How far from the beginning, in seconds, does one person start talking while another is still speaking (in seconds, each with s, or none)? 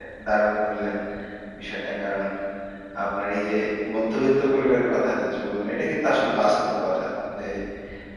none